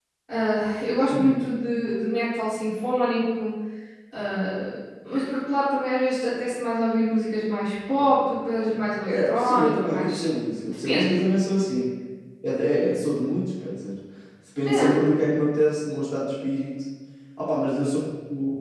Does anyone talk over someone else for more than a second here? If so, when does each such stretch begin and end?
8.6-10.3

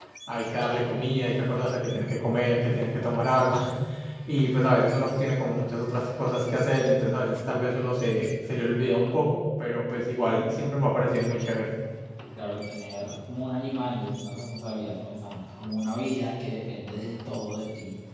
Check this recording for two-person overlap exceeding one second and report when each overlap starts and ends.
none

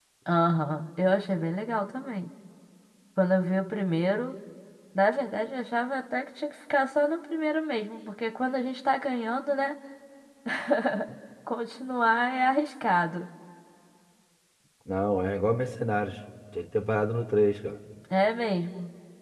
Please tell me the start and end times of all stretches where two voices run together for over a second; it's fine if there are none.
none

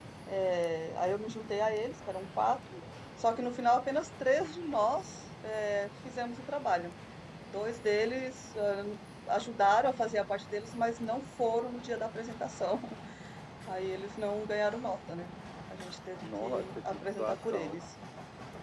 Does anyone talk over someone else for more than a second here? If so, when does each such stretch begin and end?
16.2-17.8

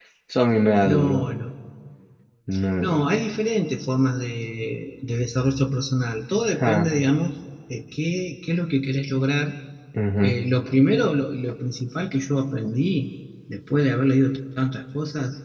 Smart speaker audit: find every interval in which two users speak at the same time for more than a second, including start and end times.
none

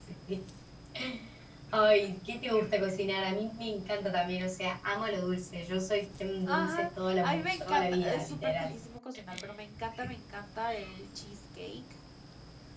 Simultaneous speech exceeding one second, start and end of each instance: 6.5-8.7

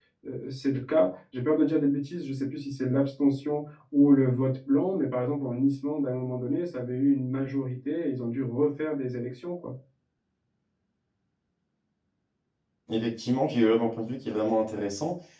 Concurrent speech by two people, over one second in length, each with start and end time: none

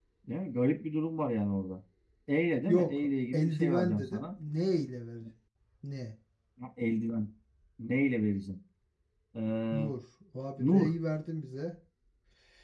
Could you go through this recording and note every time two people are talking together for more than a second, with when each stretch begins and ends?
2.6-4.2

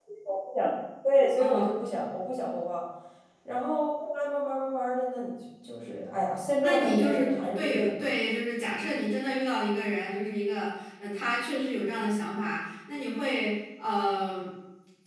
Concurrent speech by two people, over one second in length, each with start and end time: 6.6-8.0

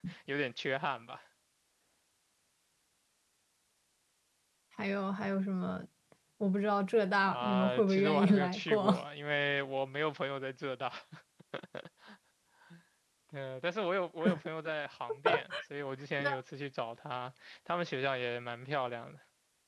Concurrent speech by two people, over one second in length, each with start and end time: 7.3-9.0

